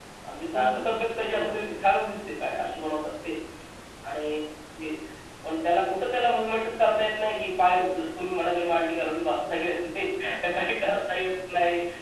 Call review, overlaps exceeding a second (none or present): present